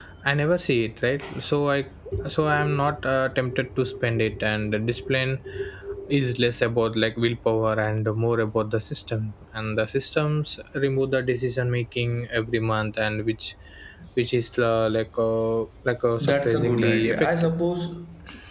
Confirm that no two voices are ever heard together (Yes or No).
No